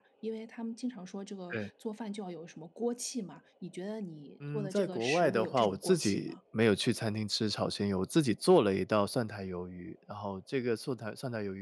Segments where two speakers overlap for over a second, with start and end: 4.5-6.4

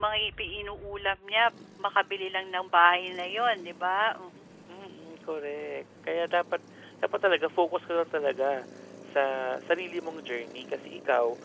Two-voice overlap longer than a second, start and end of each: none

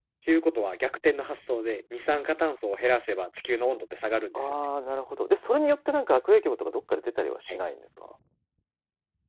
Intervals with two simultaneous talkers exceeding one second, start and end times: none

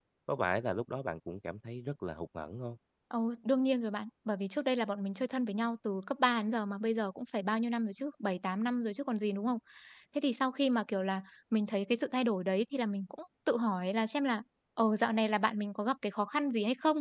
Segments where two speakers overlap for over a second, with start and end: none

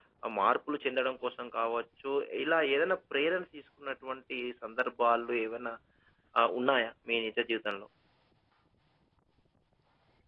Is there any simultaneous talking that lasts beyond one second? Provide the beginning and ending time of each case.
none

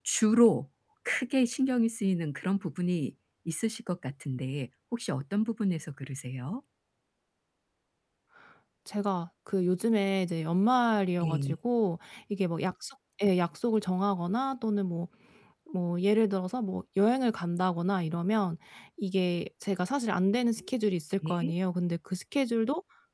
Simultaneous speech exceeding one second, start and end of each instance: none

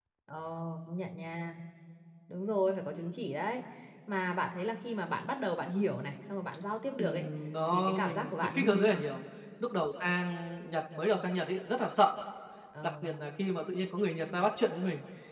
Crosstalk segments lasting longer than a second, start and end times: 7.7-9.0

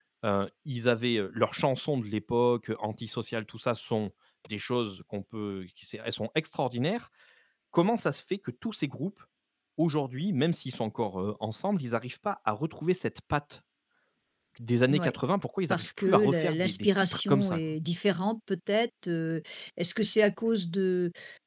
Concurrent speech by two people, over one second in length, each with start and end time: 15.7-17.7

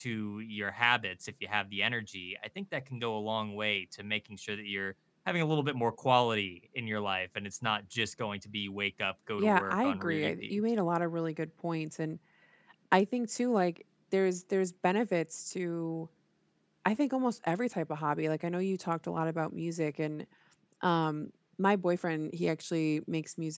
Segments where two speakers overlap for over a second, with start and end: 9.4-10.6

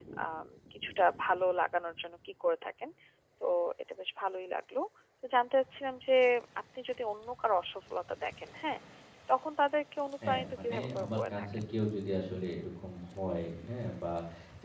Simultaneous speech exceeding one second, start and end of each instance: 10.3-11.5

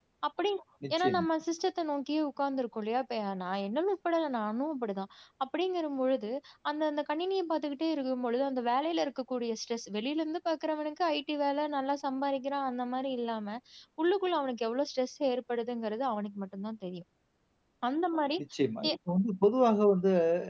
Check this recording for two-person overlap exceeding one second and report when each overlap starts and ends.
none

